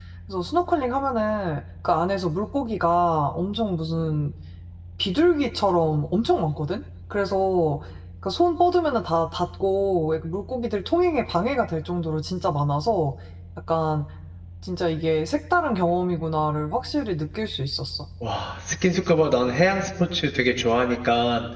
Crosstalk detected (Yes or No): No